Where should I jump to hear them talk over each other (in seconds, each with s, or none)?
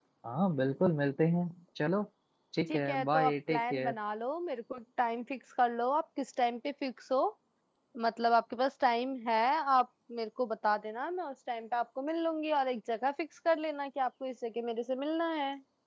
2.7 s